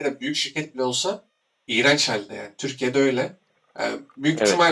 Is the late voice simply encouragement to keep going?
Yes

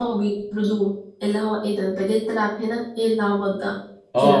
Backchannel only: No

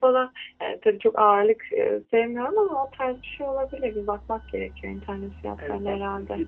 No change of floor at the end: No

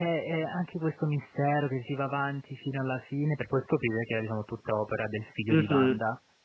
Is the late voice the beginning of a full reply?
Yes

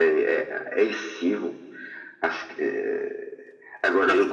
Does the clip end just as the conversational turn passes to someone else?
Yes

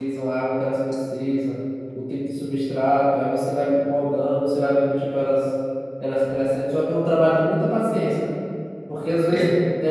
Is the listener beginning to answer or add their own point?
No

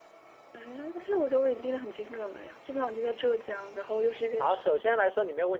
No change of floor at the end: No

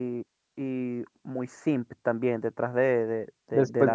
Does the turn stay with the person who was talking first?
No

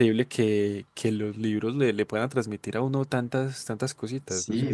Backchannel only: No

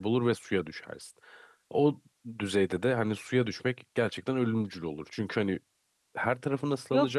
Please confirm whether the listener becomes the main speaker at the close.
Yes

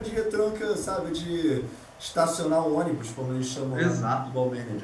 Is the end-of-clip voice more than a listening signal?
Yes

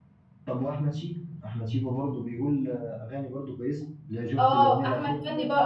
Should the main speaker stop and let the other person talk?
Yes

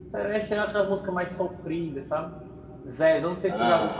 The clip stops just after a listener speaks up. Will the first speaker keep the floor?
Yes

